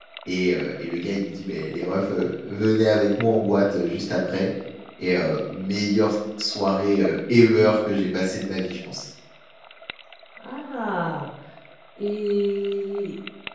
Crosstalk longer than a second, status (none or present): none